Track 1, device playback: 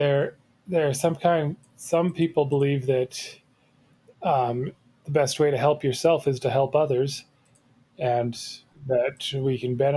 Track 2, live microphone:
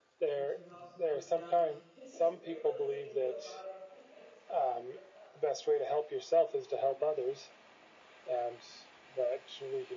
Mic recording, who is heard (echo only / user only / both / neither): both